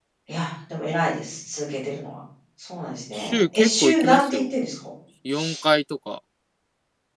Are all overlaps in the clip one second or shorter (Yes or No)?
No